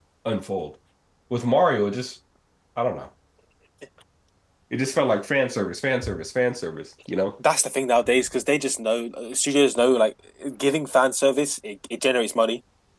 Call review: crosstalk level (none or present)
none